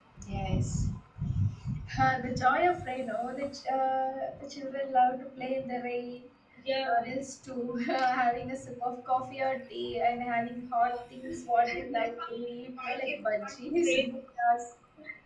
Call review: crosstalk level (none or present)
present